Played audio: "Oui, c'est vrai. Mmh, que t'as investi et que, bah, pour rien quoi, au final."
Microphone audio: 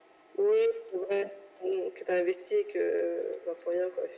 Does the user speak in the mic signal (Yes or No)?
No